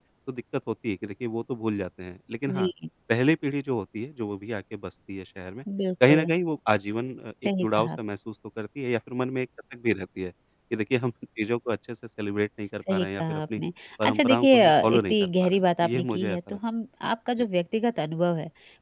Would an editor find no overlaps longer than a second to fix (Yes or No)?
No